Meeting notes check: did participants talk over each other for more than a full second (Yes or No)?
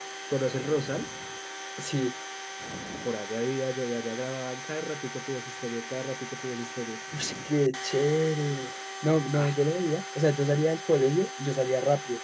No